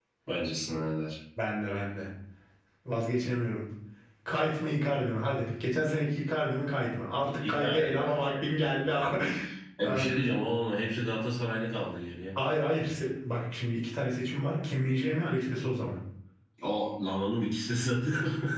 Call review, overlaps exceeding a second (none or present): present